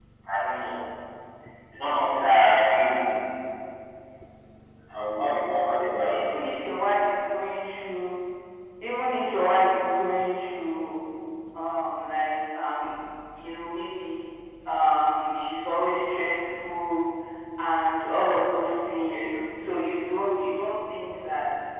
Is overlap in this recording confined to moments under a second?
Yes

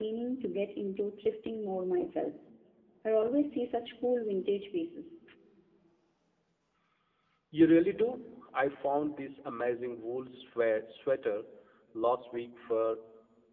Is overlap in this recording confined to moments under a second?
Yes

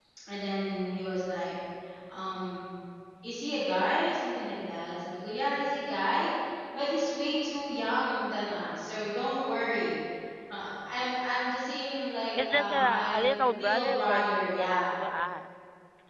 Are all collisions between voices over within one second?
No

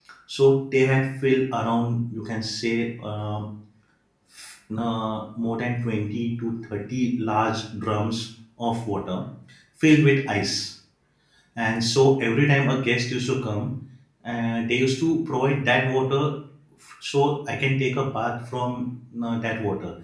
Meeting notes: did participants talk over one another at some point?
No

